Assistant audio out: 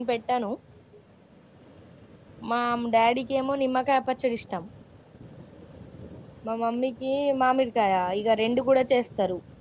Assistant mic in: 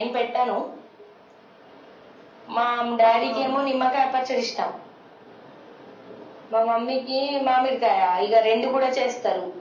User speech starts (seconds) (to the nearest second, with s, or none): 3 s